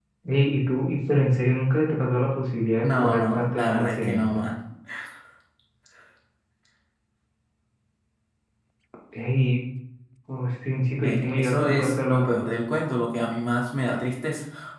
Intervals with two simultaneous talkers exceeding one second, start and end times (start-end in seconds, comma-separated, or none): 2.8-4.5, 11.0-12.3